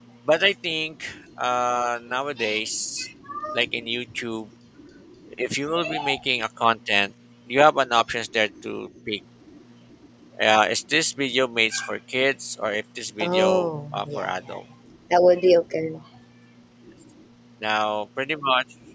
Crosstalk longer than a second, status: present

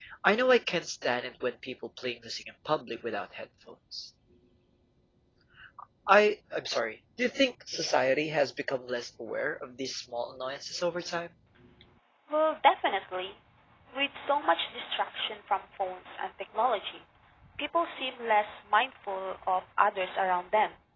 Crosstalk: none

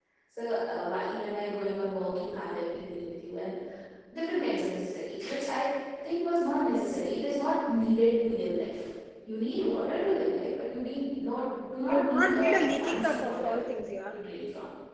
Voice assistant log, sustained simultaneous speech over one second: present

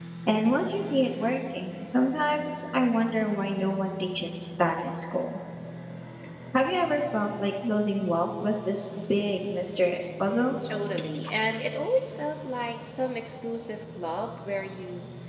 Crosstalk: none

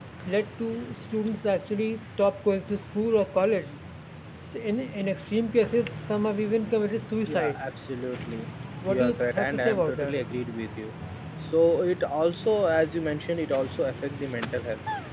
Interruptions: present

